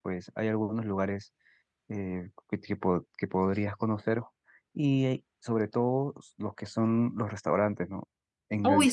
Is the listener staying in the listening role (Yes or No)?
No